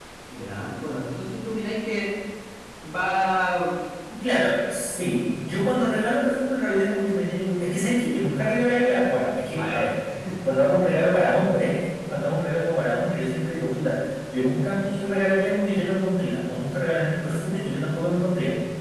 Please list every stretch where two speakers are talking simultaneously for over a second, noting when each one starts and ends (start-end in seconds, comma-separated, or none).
none